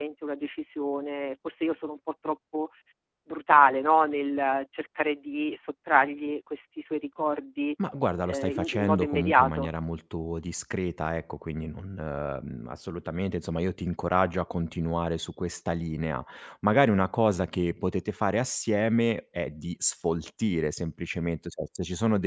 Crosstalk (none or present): present